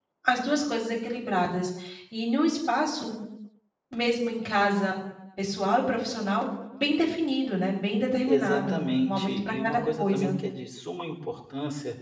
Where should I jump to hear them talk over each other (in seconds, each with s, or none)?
8.3 s